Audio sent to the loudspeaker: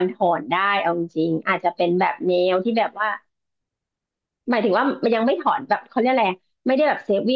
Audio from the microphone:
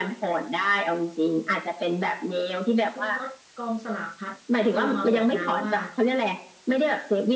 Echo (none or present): present